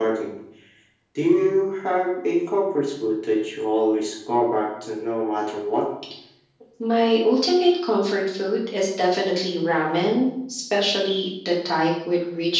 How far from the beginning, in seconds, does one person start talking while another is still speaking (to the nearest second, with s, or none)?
none